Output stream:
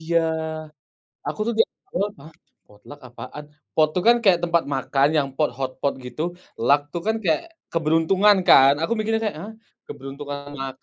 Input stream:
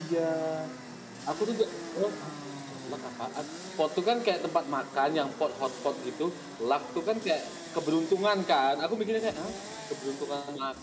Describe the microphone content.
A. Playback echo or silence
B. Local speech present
A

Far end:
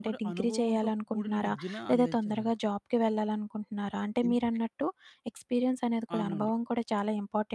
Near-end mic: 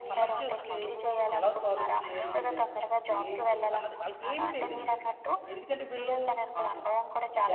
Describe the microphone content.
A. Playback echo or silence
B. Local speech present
B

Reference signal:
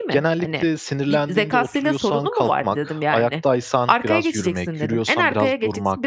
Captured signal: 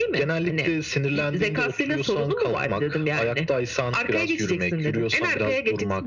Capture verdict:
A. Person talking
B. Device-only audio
B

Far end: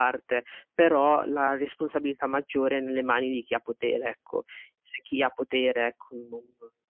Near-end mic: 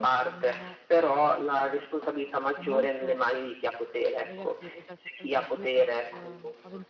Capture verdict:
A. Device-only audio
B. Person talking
B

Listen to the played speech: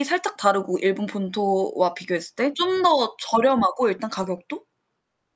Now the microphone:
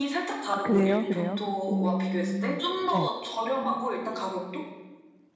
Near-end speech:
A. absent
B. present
B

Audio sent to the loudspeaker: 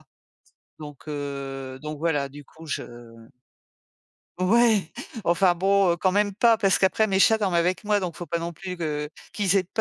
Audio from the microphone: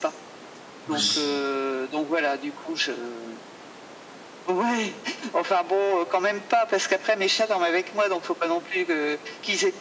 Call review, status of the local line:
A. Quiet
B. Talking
B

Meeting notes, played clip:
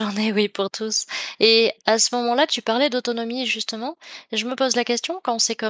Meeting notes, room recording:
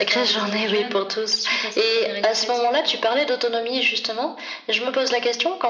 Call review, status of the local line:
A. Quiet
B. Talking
B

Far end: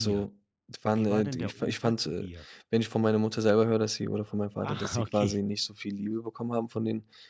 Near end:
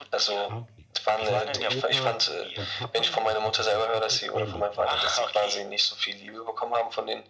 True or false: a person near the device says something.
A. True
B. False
A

